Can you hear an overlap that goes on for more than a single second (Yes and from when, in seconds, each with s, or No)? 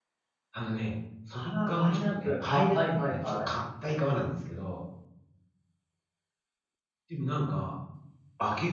Yes, from 1.3 s